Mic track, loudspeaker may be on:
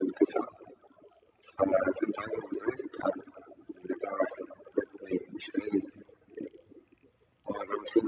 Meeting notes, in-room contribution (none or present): none